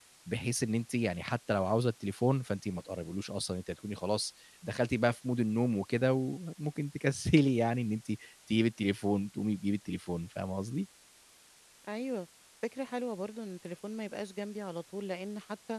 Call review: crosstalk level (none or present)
none